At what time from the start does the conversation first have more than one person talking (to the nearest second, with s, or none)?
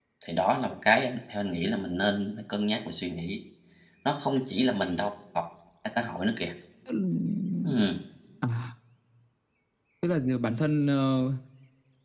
none